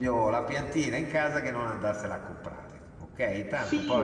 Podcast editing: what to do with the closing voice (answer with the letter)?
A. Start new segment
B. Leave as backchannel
A